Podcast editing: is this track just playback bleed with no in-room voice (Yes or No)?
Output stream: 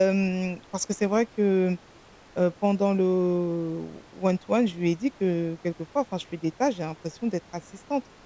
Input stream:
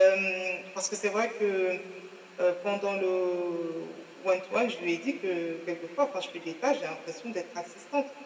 Yes